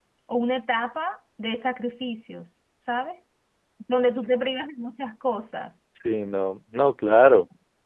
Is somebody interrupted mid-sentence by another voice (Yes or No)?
No